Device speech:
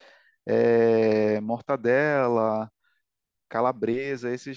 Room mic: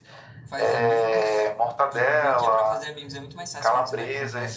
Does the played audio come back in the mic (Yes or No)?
Yes